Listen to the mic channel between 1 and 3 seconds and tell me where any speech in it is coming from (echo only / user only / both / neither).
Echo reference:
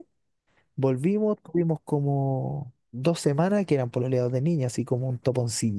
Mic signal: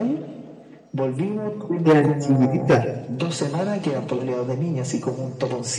both